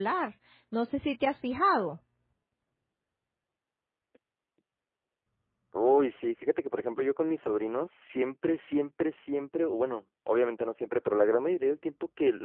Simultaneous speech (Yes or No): No